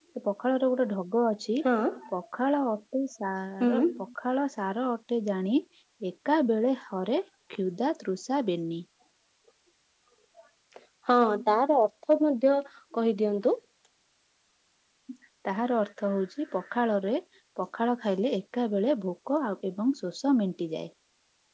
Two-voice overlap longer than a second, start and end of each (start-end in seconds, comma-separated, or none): none